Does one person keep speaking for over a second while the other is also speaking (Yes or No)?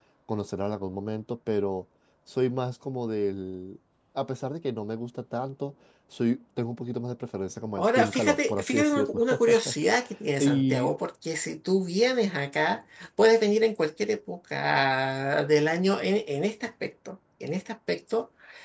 Yes